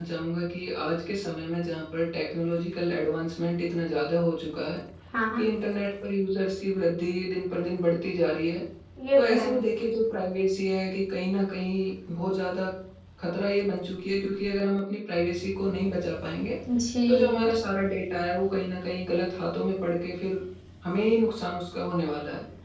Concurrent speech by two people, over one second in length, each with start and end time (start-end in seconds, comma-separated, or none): none